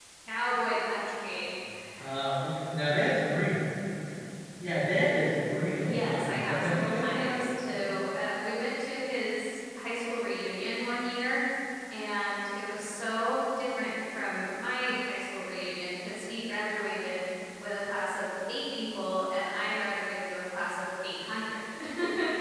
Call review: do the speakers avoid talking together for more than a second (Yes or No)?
No